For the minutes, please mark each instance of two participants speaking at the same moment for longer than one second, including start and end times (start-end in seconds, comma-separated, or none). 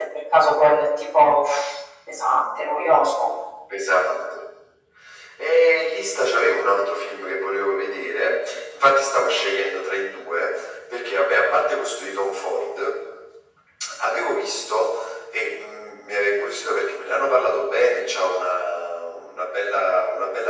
none